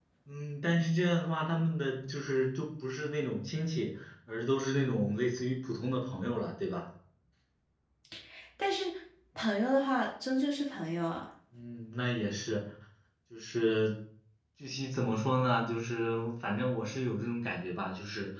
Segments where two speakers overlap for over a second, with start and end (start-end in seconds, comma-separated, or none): none